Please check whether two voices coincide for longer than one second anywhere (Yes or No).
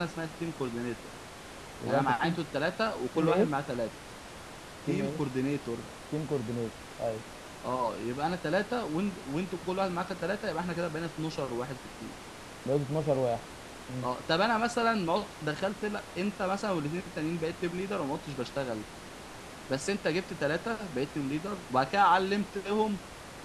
No